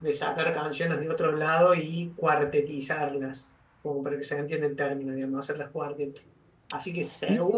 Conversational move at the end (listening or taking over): listening